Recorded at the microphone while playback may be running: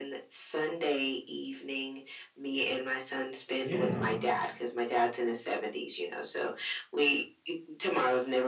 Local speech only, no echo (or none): Yeah.